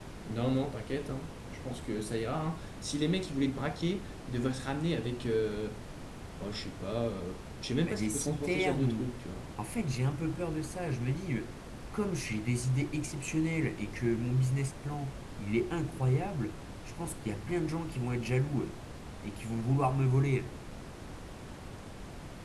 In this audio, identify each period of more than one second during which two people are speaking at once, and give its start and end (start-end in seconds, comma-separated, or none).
7.8-9.1